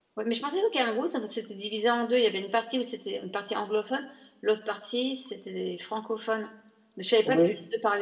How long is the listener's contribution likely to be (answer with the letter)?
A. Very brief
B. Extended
A